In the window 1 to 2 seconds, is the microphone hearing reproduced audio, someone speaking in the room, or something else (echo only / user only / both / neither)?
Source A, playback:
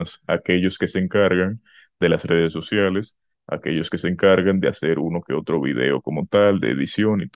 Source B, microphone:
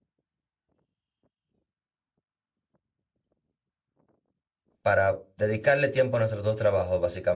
neither